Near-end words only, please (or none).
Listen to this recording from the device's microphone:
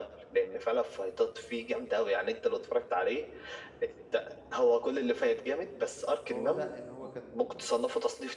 فهو بدأ إن هو كان